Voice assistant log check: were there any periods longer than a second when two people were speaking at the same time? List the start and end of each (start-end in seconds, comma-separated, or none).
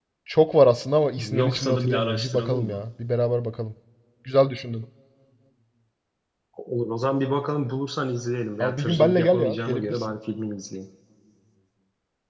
1.3-2.8, 8.6-10.1